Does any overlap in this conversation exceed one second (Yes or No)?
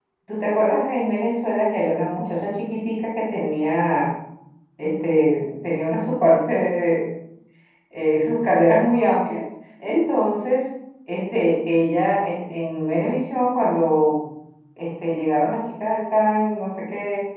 No